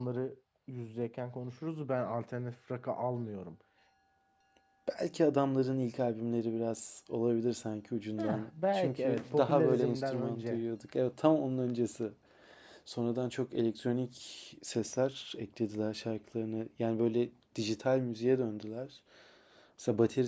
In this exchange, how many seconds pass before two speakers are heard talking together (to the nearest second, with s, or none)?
8 s